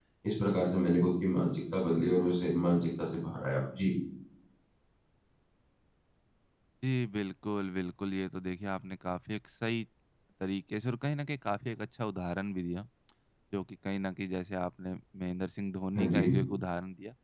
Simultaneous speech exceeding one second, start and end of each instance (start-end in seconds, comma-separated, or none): none